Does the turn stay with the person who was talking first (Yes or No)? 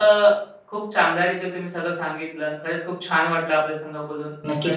No